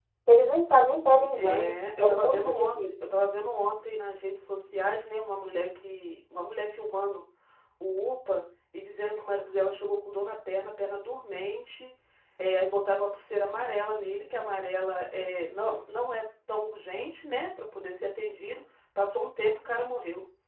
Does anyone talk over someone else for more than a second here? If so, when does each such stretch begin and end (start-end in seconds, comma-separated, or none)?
1.4-2.8